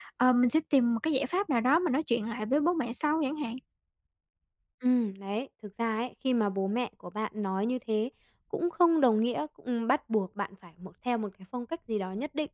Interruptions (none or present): none